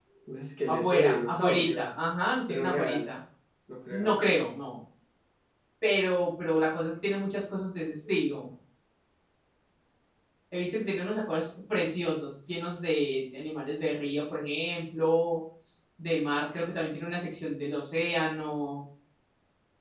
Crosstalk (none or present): present